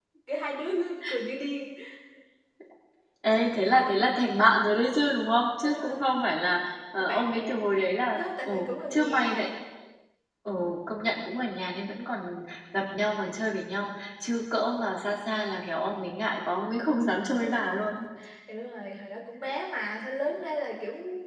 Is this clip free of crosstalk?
No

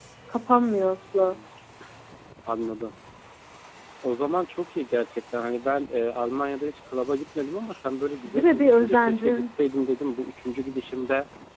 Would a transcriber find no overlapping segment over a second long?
No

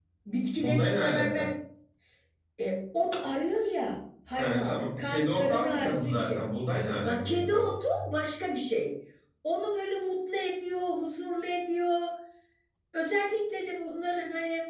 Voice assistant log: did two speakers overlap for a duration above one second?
Yes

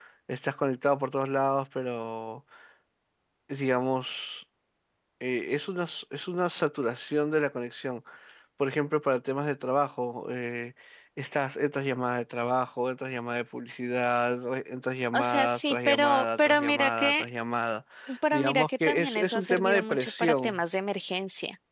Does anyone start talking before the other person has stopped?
Yes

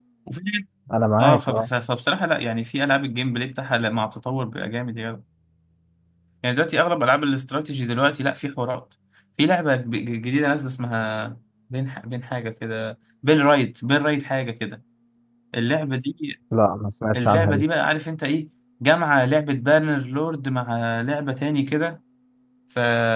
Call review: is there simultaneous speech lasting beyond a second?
No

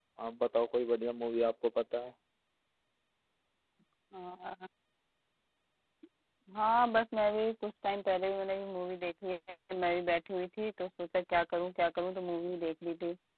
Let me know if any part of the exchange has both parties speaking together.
No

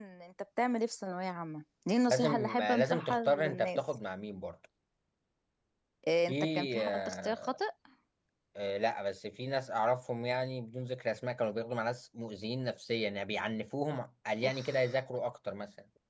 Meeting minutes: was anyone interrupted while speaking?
Yes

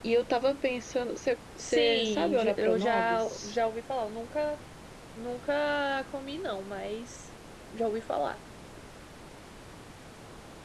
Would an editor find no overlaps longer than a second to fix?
No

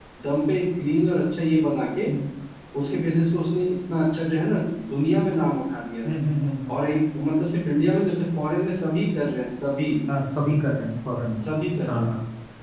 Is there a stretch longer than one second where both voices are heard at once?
No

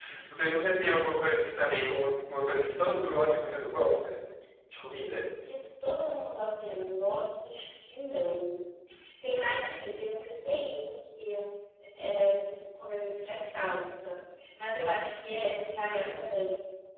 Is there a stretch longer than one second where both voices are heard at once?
No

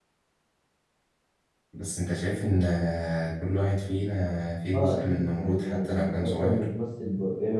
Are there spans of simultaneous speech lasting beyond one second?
Yes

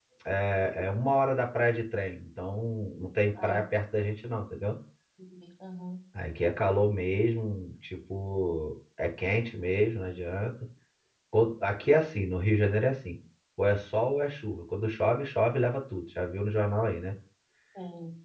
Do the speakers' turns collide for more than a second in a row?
No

